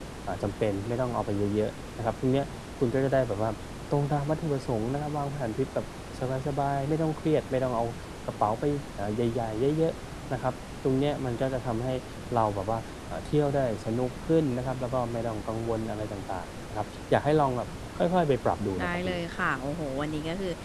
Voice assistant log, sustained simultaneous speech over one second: none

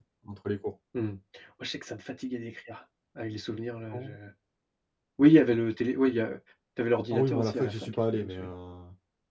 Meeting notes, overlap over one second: present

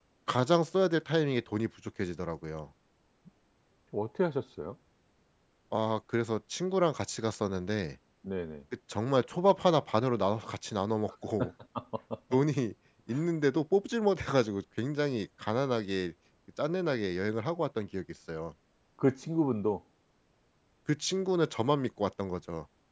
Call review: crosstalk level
none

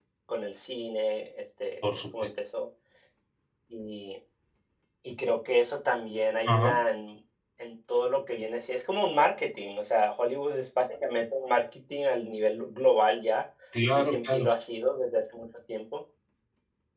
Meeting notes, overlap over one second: none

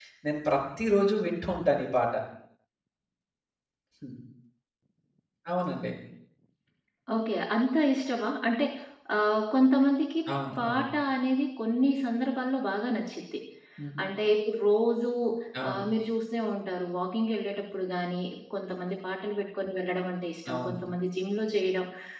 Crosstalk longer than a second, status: none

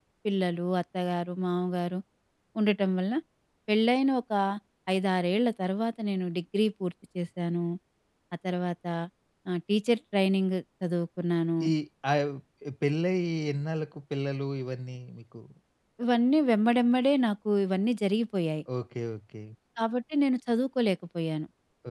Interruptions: none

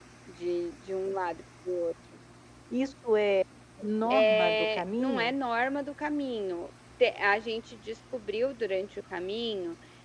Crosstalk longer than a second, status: present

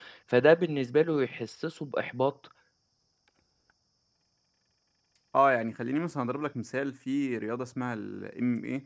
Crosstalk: none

